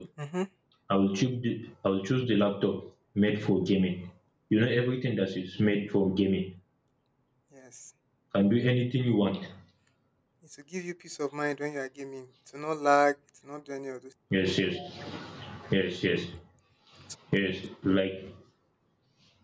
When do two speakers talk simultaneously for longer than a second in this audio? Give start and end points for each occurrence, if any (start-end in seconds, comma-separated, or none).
none